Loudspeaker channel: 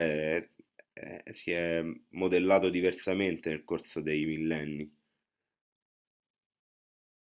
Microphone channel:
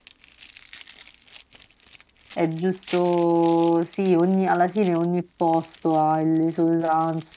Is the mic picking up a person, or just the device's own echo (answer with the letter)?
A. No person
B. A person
B